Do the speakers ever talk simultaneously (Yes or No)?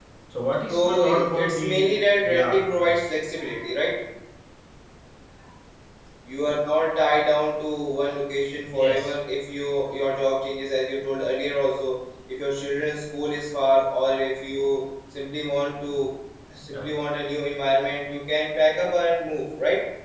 Yes